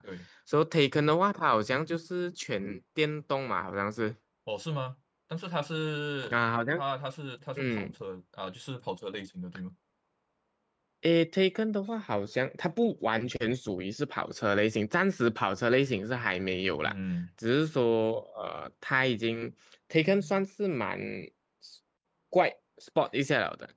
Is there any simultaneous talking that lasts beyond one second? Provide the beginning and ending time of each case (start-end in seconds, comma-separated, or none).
none